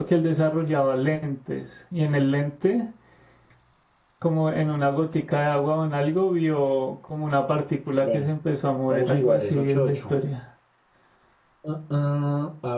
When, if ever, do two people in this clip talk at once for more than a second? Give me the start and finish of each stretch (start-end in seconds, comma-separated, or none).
8.9-10.1